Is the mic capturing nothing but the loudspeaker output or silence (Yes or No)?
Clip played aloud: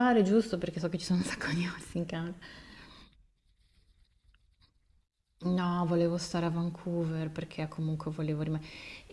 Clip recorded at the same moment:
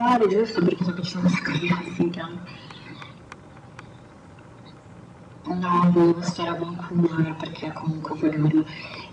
Yes